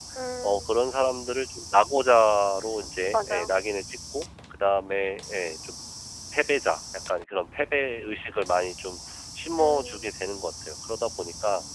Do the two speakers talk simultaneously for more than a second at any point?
No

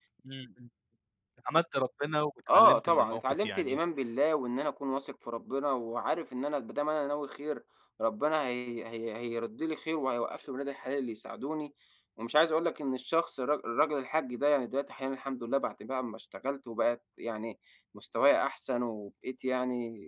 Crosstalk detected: Yes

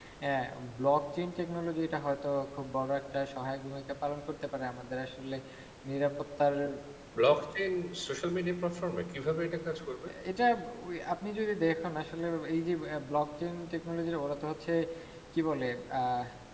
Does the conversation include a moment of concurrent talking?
No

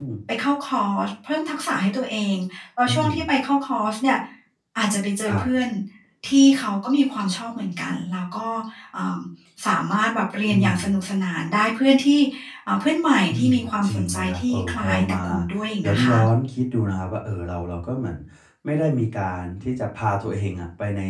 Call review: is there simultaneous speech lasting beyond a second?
Yes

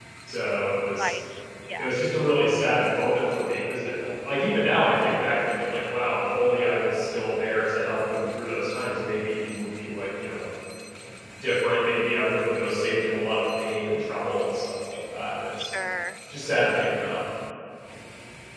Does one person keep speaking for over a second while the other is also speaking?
No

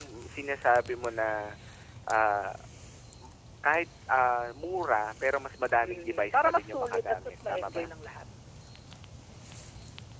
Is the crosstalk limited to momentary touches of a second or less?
No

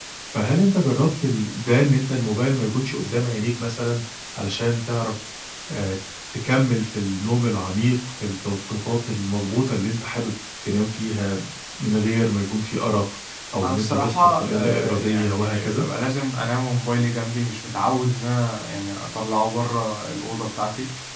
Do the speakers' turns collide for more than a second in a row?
Yes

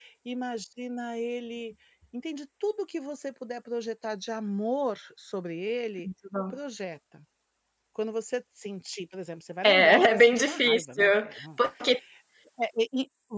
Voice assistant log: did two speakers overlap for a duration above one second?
Yes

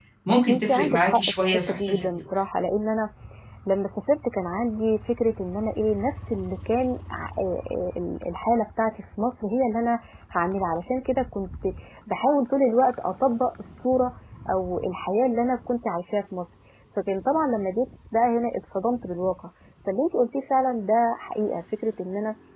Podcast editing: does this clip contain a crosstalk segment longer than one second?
Yes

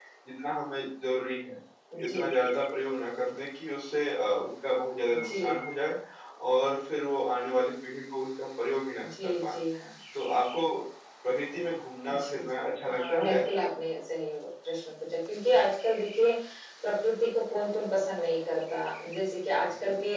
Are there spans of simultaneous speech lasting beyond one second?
Yes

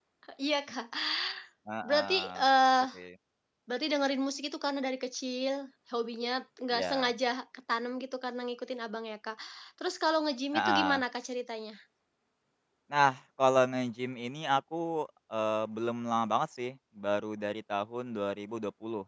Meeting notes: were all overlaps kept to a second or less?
Yes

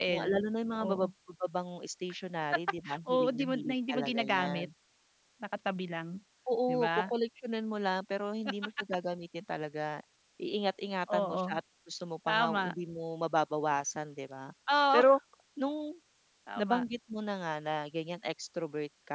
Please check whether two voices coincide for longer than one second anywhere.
Yes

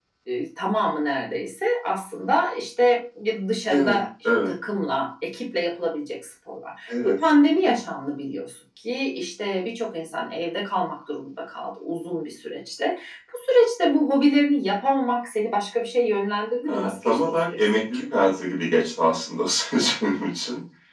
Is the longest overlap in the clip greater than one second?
Yes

